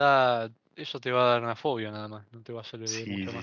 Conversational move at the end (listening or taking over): taking over